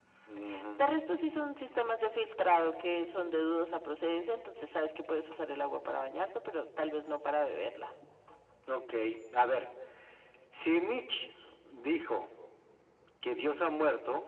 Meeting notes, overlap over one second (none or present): none